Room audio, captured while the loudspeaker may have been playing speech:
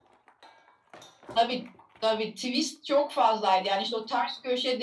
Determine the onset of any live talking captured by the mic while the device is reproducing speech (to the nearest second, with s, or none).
none